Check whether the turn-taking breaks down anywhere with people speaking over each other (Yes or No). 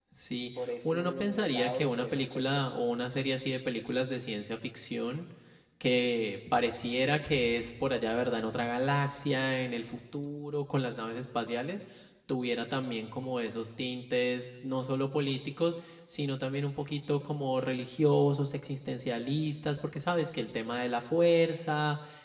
Yes